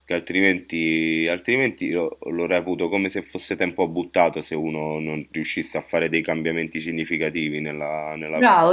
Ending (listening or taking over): taking over